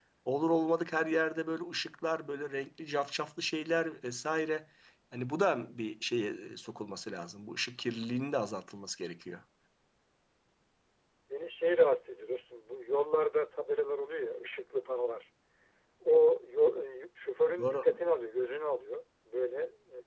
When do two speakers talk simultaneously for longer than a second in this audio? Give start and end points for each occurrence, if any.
none

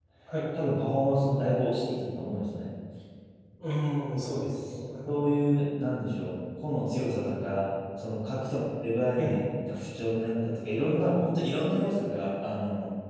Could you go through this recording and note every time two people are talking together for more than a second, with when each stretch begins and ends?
none

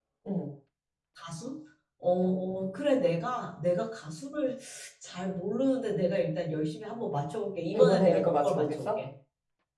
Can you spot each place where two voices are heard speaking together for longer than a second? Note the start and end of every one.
7.7-9.0

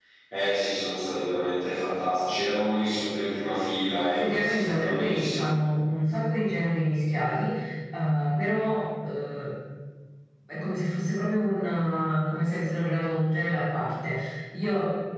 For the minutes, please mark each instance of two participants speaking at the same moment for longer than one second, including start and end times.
4.0-5.5

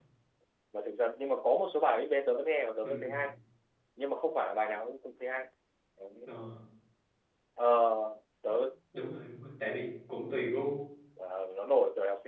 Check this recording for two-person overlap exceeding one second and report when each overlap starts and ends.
none

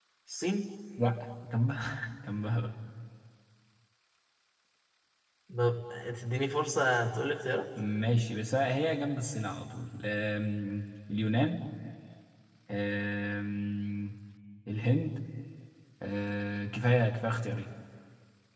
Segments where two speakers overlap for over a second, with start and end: none

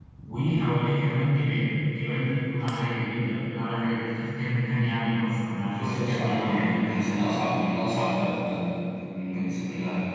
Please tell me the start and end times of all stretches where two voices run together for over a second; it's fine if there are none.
5.5-7.0

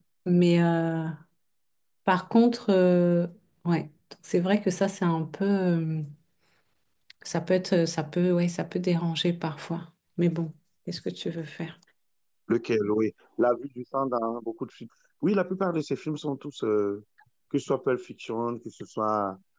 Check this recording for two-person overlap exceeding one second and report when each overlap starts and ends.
none

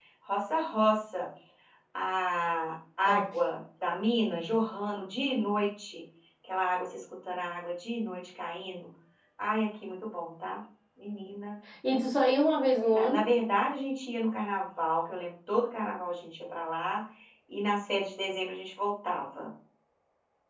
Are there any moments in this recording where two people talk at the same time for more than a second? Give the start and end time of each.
none

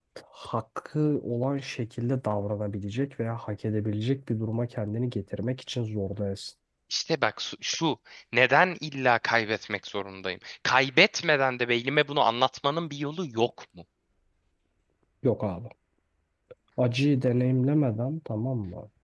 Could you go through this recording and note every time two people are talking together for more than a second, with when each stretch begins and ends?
none

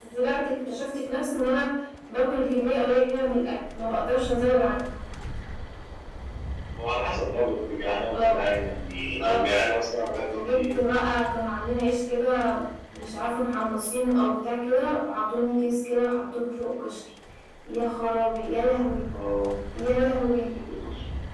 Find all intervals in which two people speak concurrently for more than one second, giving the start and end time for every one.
none

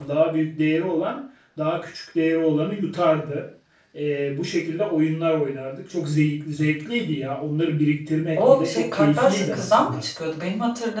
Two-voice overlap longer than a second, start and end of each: 8.3-10.0

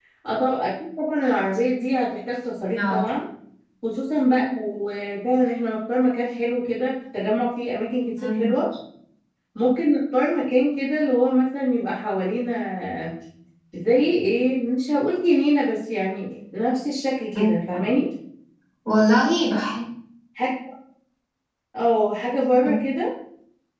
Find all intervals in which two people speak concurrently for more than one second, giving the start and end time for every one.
none

